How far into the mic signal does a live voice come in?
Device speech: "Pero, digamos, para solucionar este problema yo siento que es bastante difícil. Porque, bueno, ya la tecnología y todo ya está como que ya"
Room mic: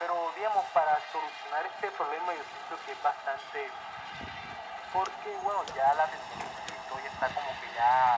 none

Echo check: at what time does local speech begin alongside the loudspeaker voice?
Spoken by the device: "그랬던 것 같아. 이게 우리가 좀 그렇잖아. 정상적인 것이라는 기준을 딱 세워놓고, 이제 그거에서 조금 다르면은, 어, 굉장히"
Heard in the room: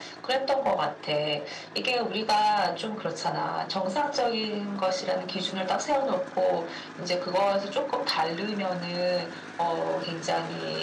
none

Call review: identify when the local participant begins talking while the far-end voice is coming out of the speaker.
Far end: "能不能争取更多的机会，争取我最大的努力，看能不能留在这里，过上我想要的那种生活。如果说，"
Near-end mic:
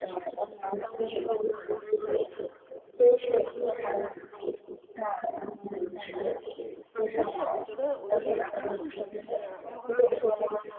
7.1 s

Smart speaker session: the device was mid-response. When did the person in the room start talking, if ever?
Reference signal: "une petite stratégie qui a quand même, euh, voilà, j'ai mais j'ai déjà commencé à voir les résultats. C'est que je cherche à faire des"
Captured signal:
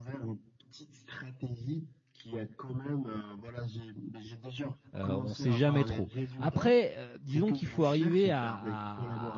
4.9 s

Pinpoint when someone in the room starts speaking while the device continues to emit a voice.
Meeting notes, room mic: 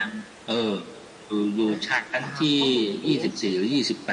1.7 s

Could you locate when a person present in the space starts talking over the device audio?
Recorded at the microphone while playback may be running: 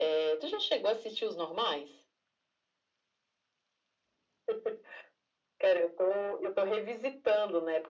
none

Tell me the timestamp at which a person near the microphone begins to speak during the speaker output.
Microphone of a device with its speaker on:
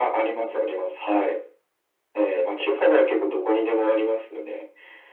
none

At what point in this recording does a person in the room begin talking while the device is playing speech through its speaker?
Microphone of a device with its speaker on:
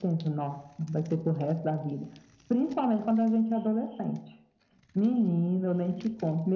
none

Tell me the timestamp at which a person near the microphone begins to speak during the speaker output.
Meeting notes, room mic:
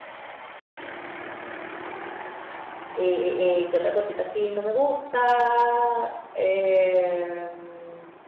2.9 s

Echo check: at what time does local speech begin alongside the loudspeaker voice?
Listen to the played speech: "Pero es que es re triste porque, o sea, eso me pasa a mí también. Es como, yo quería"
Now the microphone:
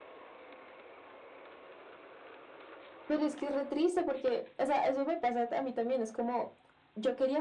none

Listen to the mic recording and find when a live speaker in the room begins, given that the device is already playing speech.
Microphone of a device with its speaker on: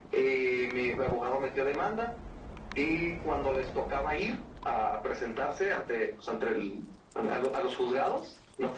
none

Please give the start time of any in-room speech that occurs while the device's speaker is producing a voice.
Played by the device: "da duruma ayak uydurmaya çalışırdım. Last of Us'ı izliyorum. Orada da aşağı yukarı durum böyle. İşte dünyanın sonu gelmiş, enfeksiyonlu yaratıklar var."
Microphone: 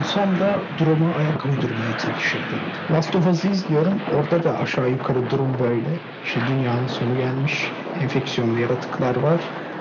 none

